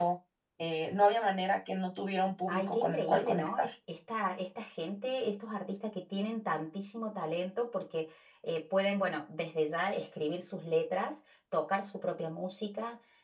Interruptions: present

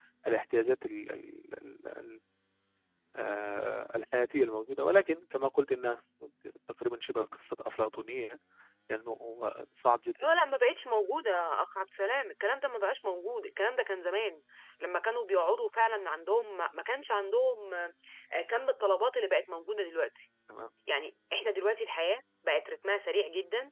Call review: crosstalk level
none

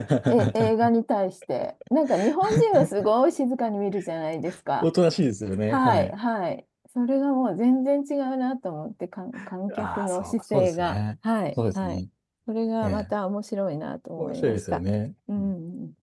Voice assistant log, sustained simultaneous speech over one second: present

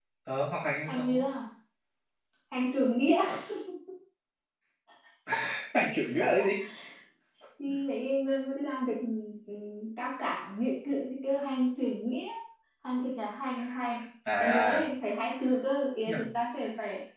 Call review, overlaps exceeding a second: none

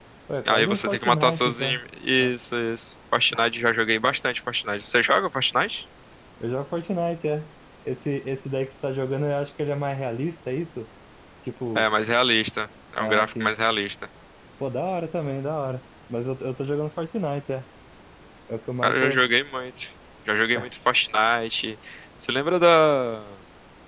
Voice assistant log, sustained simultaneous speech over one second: present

